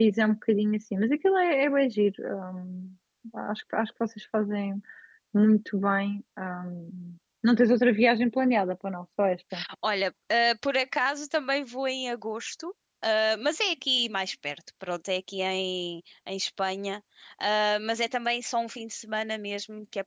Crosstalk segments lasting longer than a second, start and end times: none

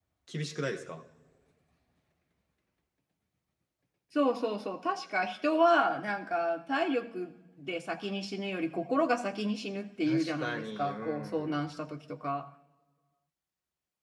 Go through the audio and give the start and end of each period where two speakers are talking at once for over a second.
10.1-11.6

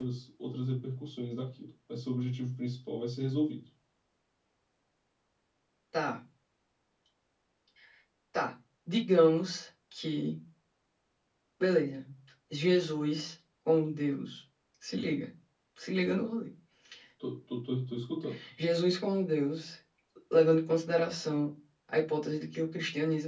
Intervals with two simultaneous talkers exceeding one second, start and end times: none

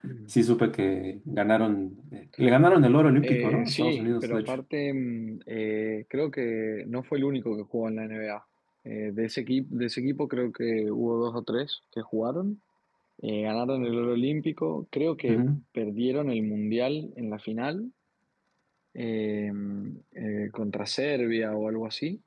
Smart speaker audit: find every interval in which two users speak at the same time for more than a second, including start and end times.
3.2-4.5

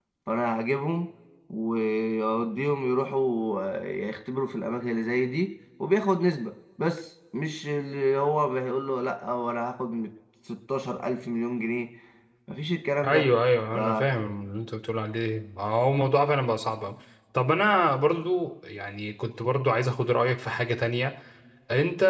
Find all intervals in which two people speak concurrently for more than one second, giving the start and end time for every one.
none

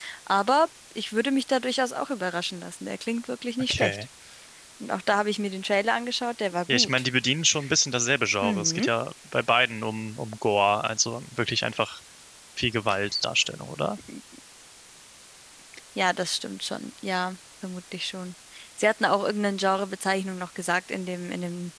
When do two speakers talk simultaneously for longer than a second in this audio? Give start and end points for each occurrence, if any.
none

